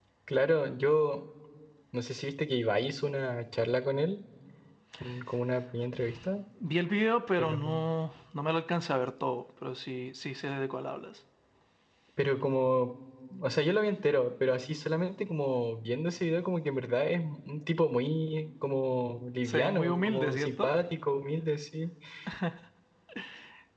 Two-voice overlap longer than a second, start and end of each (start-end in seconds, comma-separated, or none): 19.4-20.8